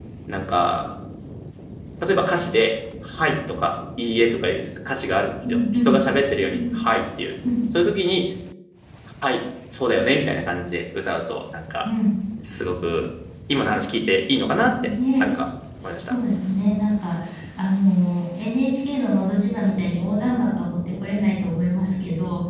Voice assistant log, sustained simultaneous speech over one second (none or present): none